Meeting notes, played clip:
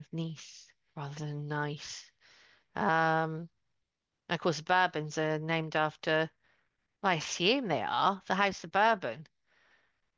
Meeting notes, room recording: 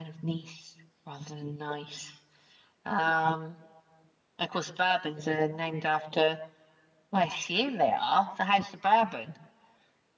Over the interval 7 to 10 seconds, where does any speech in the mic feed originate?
echo only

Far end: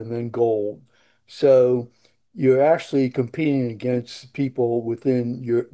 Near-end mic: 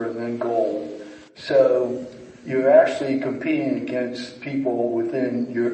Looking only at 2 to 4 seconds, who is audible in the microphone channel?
echo only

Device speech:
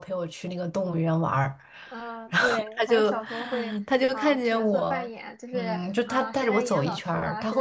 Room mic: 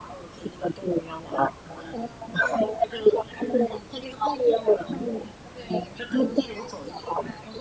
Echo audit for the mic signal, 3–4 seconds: echo only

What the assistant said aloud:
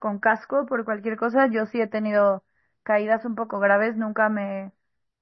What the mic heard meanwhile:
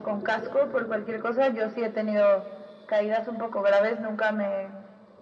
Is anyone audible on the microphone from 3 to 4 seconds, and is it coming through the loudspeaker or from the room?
echo only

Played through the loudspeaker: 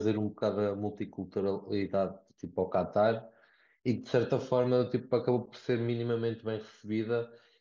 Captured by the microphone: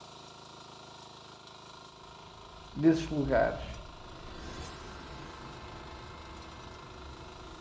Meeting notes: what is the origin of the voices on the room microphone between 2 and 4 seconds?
user only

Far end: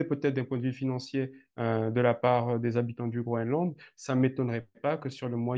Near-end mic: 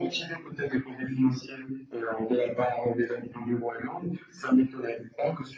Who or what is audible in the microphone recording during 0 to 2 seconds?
echo only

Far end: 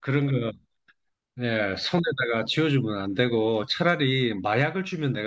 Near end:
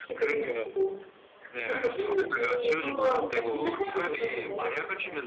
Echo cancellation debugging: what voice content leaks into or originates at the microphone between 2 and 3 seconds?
both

